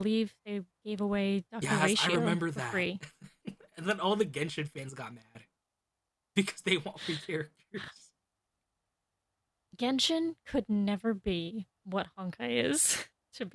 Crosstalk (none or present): present